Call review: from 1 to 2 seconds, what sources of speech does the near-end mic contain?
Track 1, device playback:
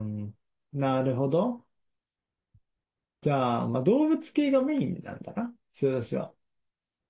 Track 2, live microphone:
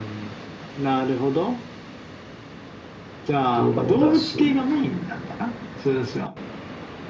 echo only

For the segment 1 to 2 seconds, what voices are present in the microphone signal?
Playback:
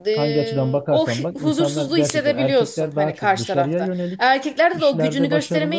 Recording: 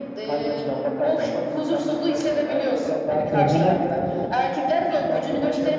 echo only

